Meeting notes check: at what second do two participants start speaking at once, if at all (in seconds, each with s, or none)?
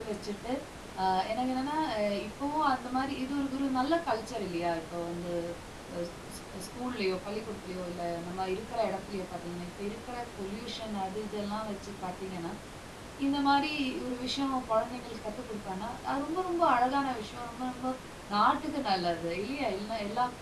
none